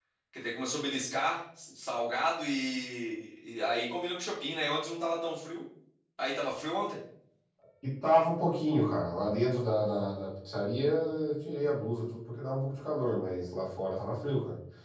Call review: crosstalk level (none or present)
none